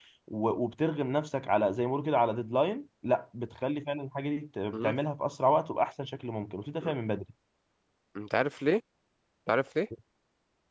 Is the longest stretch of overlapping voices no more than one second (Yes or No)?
Yes